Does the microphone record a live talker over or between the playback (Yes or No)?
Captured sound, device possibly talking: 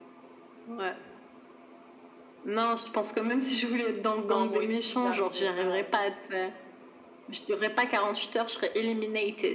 Yes